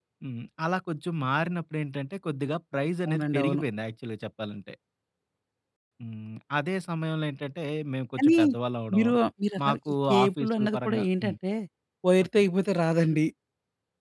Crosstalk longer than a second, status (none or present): present